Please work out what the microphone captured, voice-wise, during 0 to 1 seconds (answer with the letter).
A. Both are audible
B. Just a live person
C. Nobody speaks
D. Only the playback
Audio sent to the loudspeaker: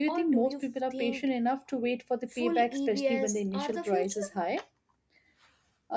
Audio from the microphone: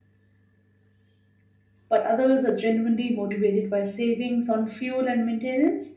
C